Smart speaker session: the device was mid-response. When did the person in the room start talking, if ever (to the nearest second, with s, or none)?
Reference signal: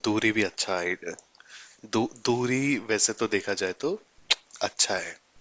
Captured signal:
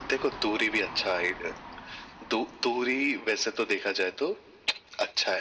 none